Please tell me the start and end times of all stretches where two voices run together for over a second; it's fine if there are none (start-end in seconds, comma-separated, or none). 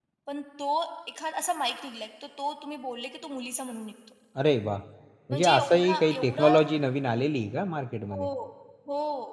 5.3-6.5